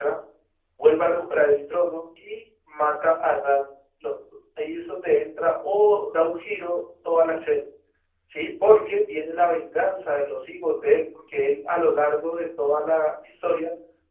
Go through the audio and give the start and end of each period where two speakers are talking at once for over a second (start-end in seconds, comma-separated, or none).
none